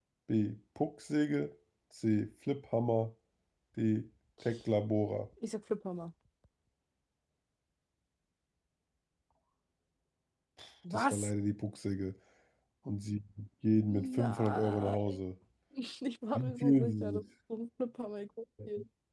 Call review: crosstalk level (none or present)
present